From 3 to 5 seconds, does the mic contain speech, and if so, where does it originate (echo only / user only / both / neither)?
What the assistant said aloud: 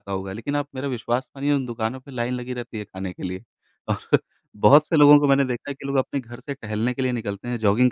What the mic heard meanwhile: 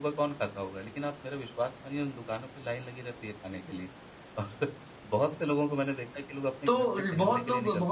echo only